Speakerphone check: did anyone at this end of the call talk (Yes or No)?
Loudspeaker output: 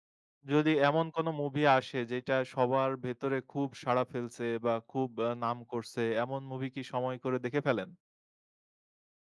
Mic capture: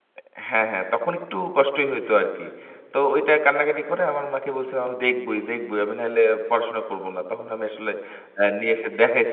Yes